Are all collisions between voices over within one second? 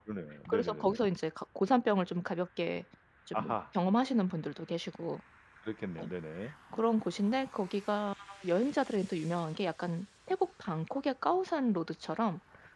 Yes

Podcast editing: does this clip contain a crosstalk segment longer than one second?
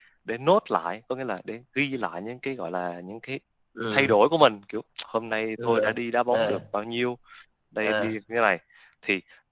No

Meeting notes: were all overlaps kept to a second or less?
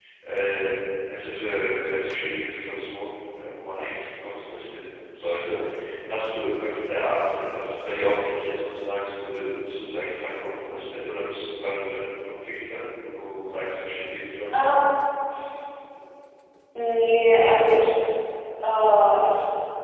Yes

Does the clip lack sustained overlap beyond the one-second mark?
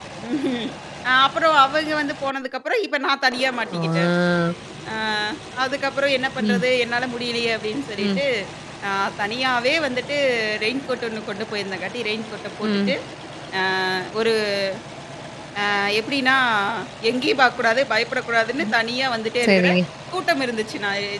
Yes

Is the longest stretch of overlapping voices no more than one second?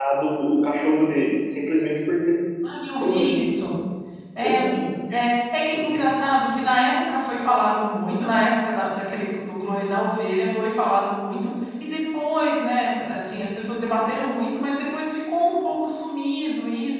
Yes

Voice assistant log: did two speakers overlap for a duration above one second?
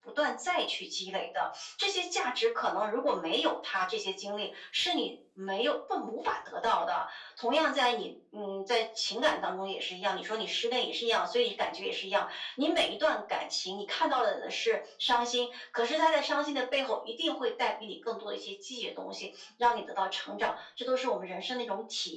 No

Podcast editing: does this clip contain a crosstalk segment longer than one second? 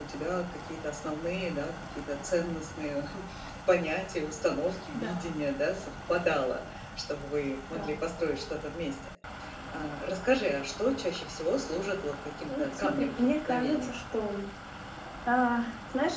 Yes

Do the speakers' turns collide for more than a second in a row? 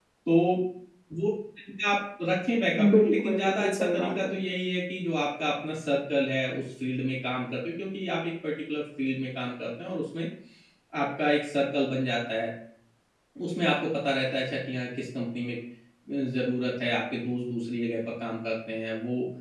Yes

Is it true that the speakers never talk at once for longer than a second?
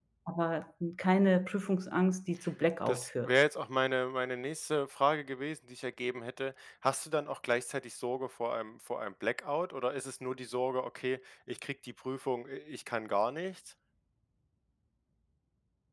Yes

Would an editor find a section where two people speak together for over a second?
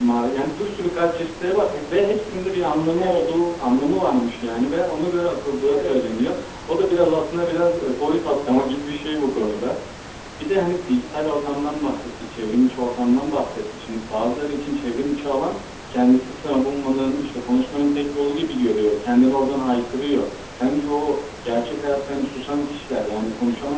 No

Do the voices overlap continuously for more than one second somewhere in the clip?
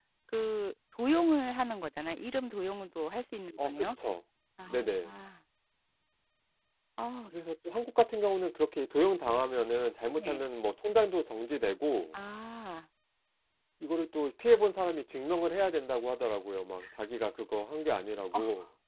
No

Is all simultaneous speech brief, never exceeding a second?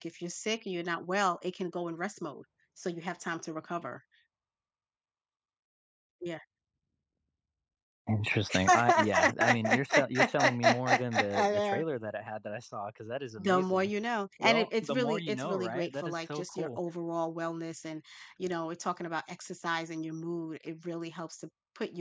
No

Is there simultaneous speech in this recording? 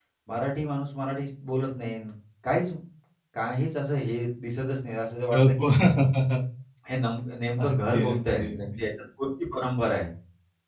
Yes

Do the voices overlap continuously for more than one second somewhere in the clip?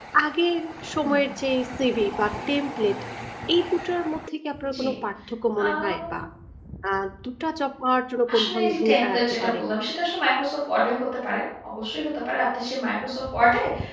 Yes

